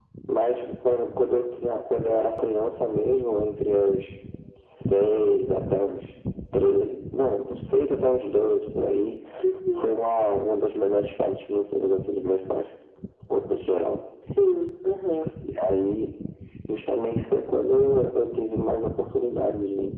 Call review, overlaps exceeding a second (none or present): none